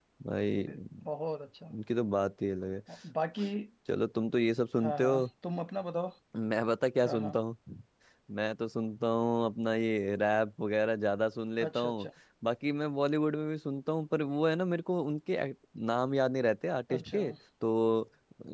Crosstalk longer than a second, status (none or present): none